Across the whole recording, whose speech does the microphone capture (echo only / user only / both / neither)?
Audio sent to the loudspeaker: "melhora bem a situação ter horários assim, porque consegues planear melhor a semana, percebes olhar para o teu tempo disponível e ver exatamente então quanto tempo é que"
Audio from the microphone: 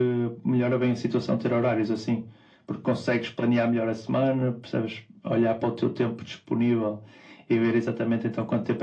echo only